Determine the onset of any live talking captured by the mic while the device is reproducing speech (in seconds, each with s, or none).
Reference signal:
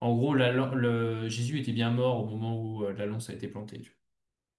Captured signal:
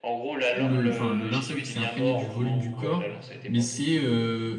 0.5 s